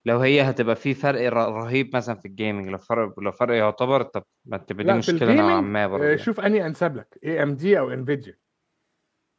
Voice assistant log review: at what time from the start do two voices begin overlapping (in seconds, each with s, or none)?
4.8 s